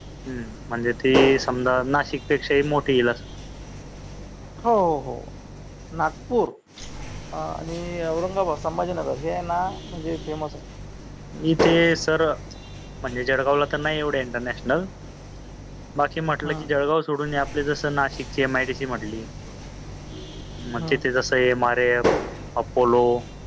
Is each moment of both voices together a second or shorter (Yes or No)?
Yes